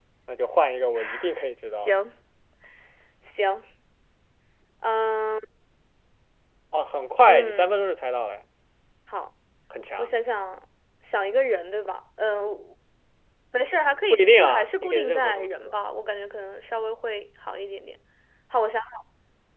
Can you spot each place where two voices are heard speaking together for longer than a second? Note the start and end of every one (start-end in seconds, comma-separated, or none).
14.1-15.7